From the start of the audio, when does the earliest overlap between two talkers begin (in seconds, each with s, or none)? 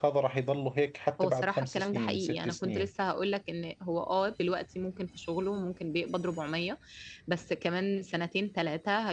1.2 s